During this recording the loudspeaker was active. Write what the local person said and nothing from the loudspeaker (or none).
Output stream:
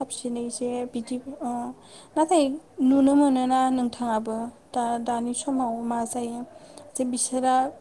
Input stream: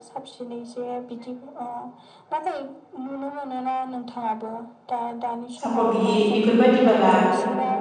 सापर्ट गैयि बेफोरबायदिबाला